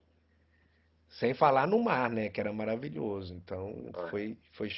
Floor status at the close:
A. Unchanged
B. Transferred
A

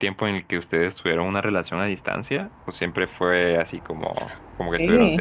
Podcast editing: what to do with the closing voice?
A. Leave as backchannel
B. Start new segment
B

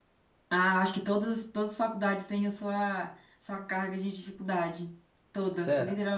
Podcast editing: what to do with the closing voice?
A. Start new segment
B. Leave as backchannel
A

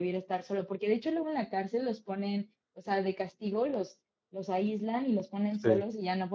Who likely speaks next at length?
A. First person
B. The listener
A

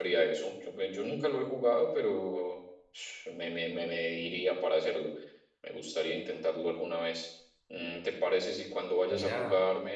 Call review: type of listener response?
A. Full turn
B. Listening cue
B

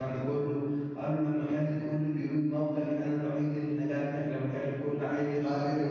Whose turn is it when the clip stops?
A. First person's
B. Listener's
A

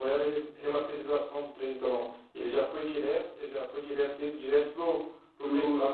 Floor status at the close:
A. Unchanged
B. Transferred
B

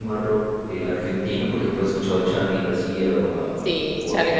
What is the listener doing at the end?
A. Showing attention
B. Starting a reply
B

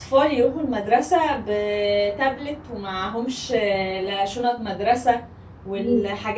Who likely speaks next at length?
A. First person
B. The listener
A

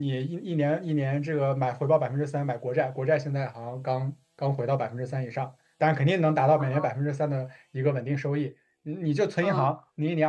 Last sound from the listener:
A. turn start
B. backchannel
B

